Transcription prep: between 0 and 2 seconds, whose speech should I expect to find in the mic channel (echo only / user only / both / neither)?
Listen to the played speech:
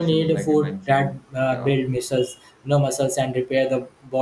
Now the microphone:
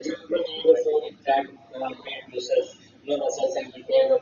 echo only